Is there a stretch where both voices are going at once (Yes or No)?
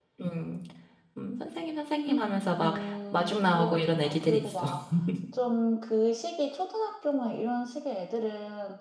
Yes